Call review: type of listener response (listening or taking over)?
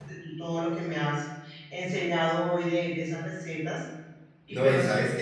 taking over